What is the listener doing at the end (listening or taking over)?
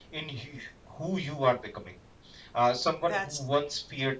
listening